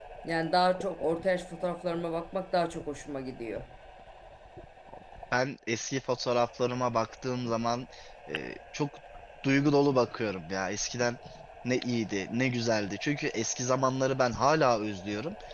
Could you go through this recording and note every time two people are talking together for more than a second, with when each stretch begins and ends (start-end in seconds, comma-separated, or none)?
none